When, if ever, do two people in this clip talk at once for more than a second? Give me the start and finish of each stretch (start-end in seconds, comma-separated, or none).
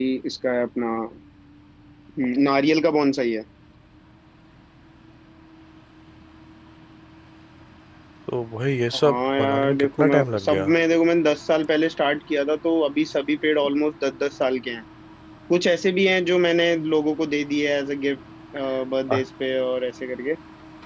9.0-10.7